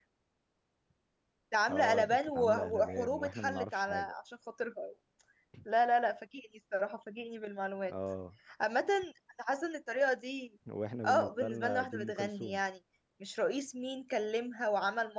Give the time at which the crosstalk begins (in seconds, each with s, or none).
1.7 s